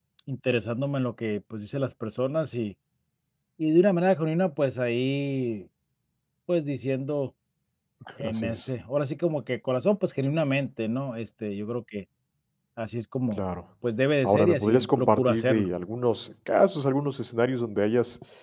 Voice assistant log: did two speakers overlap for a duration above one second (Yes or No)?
Yes